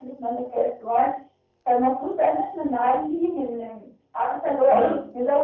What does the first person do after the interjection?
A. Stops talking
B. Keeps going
B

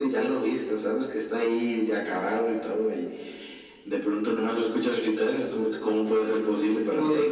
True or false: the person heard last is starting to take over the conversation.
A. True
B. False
A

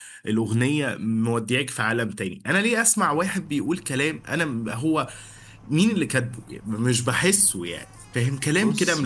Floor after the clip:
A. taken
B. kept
B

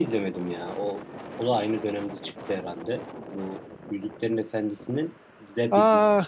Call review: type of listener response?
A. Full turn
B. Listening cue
A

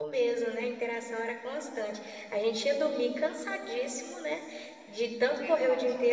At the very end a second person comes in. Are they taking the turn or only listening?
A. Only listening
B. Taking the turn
A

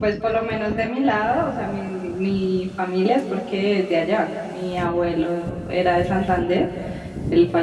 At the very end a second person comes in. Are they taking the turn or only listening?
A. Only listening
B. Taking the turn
A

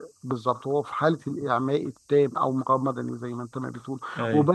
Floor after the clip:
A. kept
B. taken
A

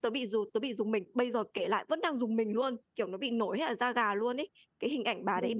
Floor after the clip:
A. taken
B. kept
B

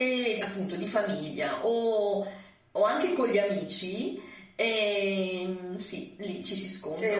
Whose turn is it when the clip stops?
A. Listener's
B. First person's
A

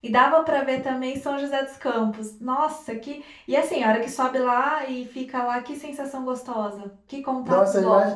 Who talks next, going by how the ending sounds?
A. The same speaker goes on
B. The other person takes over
B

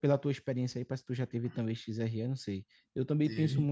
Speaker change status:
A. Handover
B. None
B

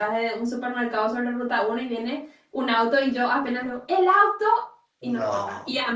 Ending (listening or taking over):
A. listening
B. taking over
A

